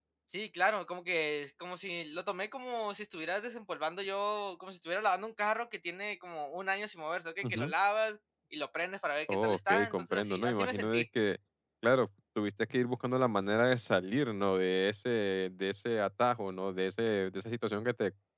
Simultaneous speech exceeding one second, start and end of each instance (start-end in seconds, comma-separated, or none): 9.3-11.1